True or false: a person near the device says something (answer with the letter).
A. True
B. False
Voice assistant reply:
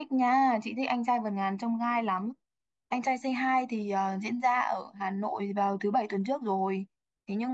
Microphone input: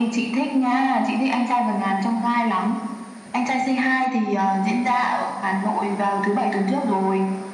B